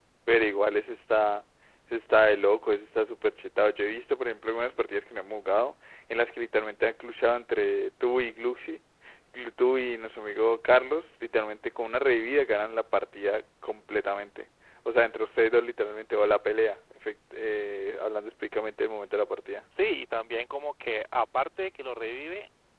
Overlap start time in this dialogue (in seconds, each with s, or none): none